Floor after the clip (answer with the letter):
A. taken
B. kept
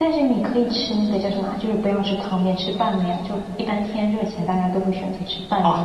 A